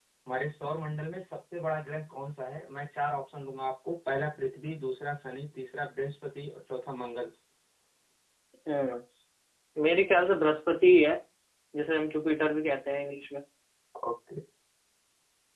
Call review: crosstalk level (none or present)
none